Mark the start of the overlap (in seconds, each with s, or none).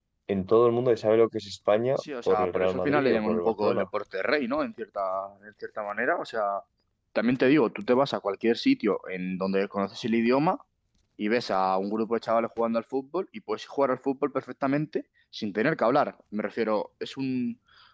2.0 s